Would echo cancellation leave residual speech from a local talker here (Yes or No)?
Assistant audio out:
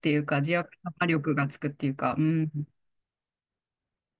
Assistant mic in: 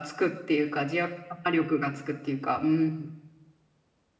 No